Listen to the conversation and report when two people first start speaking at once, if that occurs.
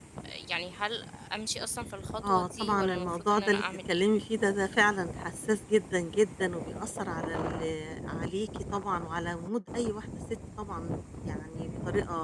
2.2 s

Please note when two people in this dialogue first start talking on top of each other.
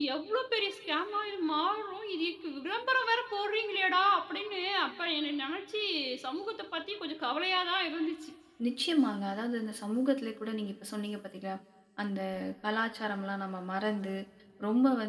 none

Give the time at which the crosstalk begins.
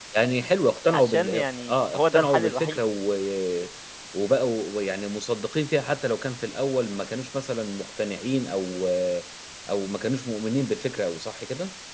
0.9 s

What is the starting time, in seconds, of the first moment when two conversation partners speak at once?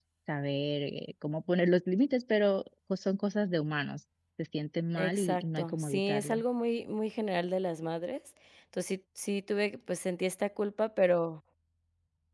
5.0 s

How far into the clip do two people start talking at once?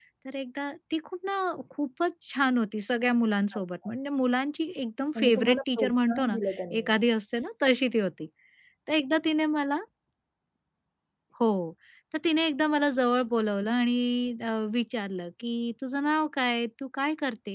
5.2 s

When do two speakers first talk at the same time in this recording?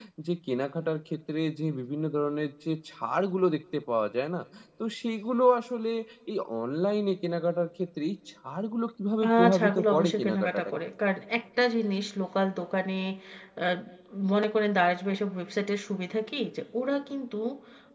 9.2 s

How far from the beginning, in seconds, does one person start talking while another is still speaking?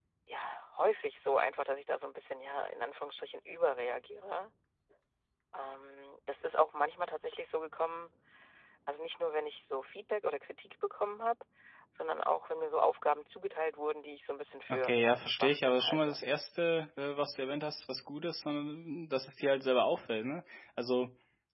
14.7 s

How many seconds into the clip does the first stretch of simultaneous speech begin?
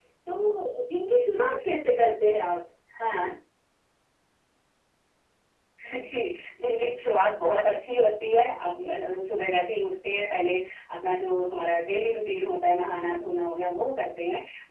none

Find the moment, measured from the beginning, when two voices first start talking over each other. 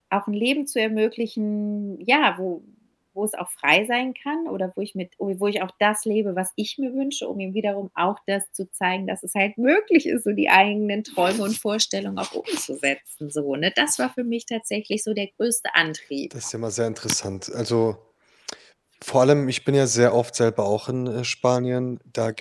none

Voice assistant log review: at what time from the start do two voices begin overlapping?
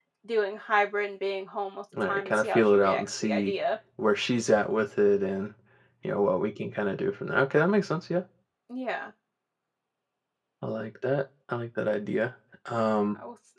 1.9 s

